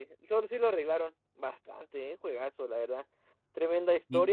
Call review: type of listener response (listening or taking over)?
listening